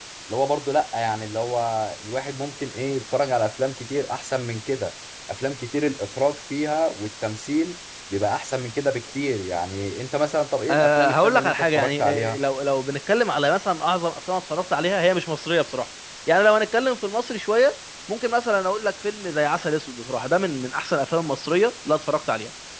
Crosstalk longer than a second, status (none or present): present